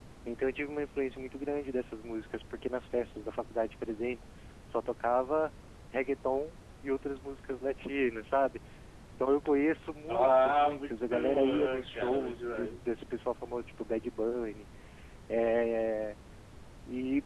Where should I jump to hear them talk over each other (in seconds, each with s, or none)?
10.1 s